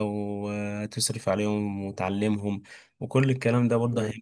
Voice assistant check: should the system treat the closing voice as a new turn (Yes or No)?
No